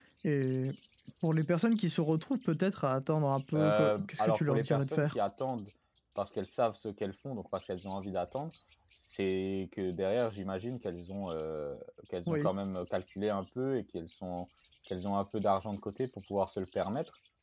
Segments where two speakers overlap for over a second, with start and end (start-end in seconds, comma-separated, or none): 3.5-5.0